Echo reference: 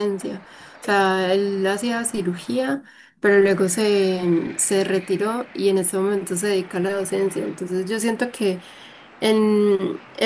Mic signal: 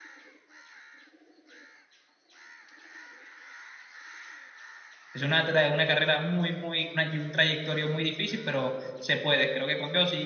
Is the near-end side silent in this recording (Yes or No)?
No